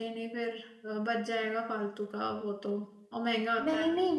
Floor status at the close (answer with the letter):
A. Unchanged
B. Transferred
B